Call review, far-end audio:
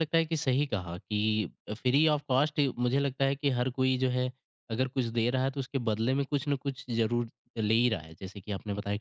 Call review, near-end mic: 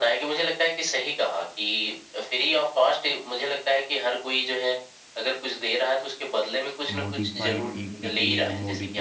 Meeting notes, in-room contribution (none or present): present